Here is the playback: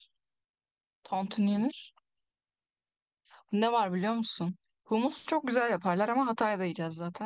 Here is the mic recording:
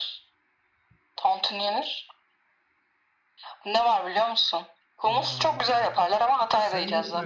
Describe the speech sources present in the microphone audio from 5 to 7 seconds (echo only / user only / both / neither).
both